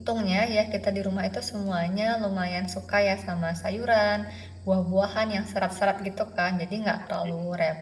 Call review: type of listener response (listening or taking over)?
listening